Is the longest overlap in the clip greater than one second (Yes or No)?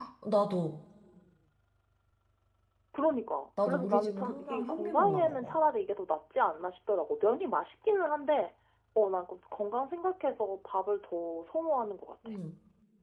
Yes